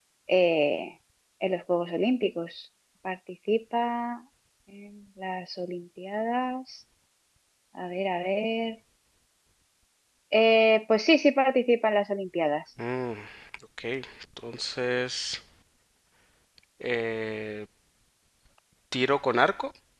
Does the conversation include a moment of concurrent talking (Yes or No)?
No